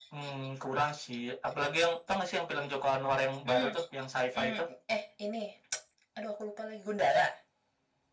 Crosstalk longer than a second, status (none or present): none